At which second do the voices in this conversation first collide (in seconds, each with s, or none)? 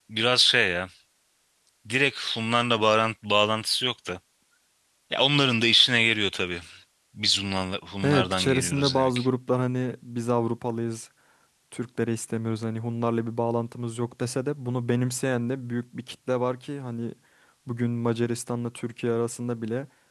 8.0 s